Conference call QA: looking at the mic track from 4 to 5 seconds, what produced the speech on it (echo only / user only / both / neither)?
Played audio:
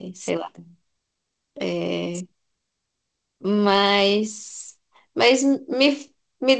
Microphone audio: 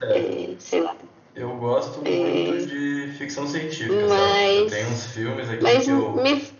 both